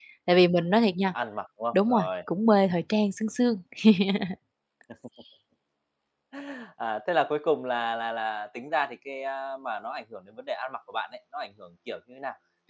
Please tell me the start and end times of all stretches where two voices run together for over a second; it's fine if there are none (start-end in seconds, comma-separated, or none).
none